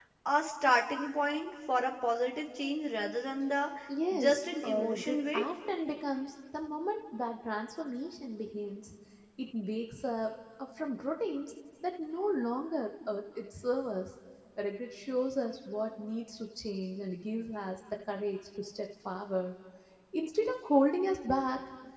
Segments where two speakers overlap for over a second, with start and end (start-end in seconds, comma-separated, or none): 4.1-5.4